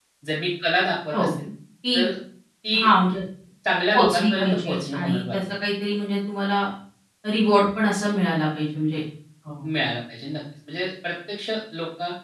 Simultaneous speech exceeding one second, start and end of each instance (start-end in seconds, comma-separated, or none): 3.9-5.4